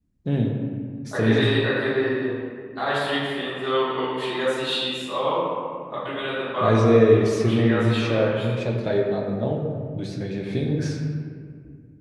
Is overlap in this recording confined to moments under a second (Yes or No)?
No